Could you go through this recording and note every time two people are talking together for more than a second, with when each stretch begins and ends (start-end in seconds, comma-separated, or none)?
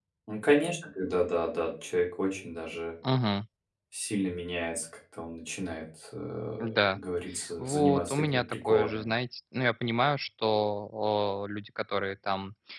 7.6-9.1